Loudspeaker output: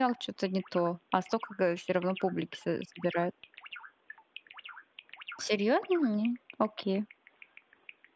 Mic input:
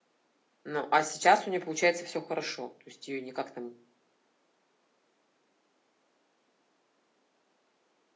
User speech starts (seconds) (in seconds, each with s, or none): 0.7 s